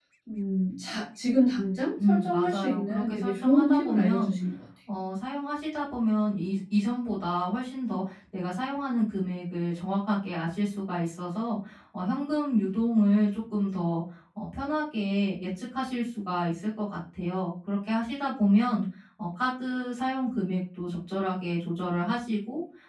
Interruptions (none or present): present